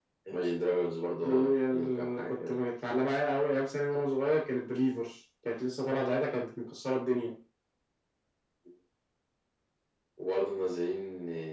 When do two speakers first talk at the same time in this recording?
1.2 s

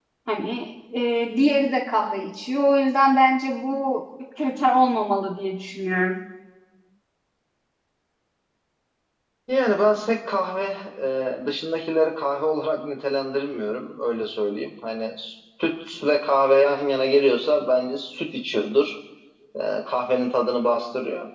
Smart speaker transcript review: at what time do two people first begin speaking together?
none

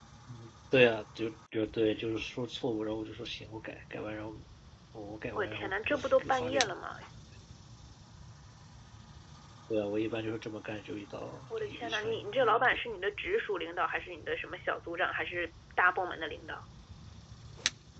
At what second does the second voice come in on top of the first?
5.3 s

